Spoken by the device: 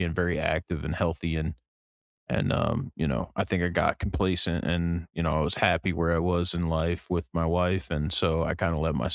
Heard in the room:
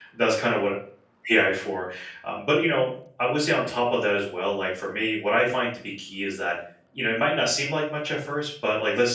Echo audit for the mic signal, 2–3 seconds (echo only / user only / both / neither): user only